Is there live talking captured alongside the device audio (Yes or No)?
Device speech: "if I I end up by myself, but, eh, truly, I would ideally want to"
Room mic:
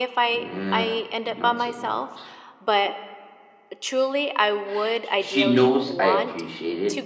Yes